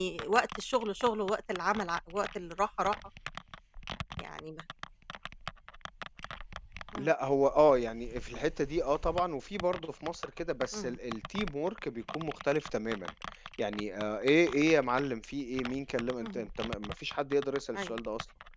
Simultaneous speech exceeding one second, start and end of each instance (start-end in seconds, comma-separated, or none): none